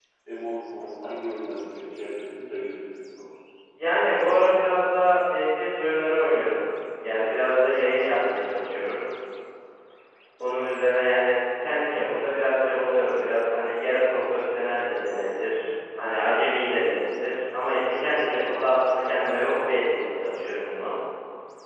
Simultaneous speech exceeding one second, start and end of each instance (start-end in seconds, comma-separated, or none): none